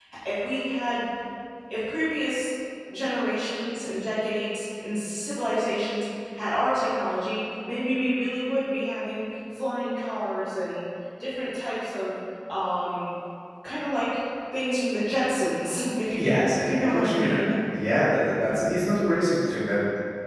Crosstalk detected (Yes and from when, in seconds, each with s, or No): Yes, from 16.2 s